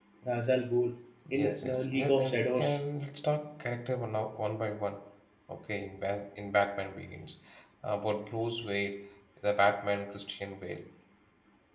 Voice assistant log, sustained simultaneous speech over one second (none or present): present